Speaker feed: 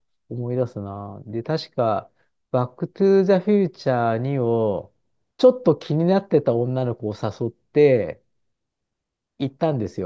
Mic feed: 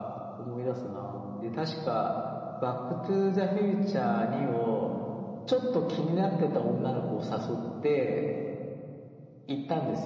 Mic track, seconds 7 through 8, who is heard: echo only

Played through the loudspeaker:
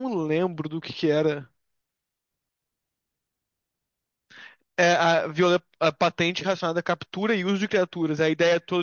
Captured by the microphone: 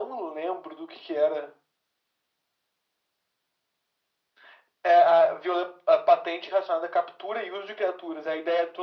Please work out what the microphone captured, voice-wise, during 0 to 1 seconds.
echo only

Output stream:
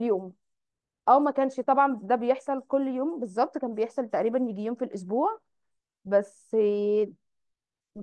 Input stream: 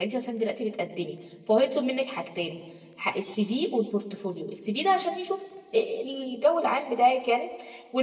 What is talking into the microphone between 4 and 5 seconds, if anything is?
user only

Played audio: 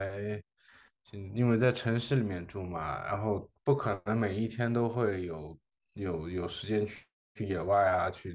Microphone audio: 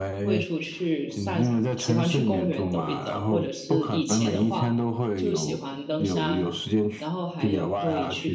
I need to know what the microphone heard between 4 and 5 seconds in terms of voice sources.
both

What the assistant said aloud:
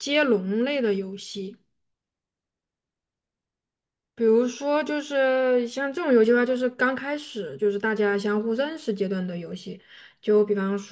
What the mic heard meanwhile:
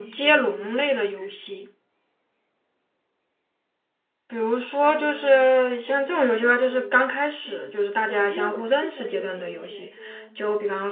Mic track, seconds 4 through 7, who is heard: both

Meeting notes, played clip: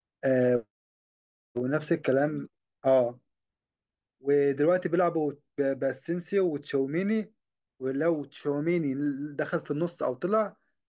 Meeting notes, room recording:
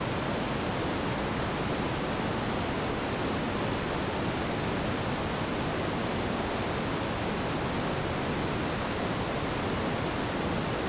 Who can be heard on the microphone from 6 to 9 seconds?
neither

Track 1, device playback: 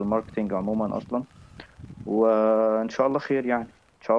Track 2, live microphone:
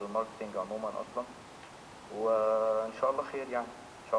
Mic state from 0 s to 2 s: echo only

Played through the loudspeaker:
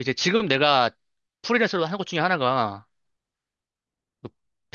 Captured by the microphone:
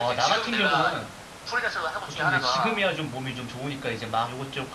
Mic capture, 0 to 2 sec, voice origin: both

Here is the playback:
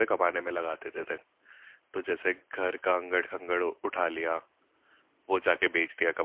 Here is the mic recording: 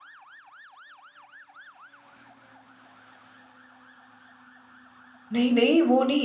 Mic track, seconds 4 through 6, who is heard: user only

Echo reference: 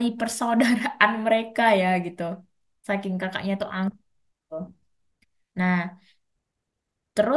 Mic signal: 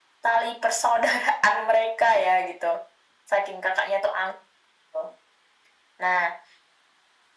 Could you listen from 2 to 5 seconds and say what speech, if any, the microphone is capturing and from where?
echo only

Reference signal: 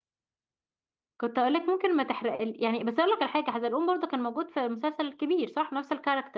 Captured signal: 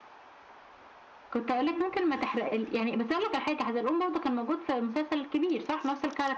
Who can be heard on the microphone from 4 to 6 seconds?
echo only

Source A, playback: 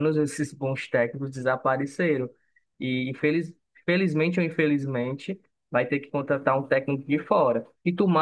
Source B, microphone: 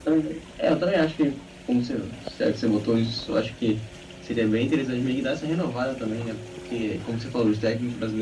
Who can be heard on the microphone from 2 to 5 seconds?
user only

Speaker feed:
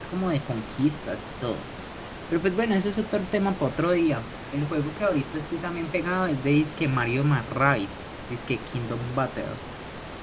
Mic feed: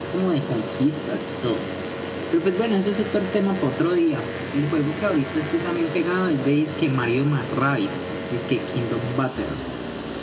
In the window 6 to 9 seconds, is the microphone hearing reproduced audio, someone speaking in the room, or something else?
echo only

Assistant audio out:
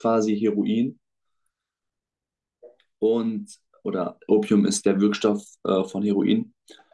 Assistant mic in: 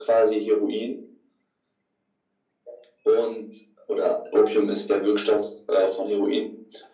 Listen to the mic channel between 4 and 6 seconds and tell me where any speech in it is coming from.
echo only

